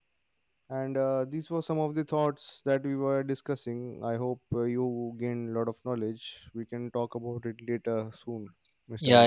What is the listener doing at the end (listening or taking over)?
taking over